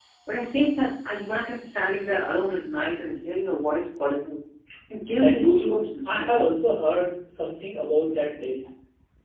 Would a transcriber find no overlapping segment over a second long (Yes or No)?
No